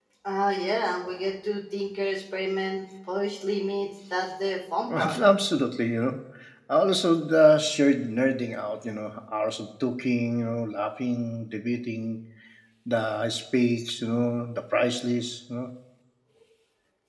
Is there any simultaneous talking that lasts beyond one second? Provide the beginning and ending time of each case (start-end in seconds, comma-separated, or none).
none